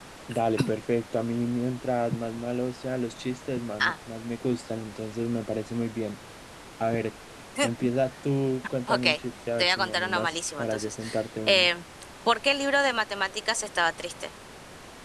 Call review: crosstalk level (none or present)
present